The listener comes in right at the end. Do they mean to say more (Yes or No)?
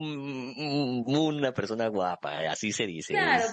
Yes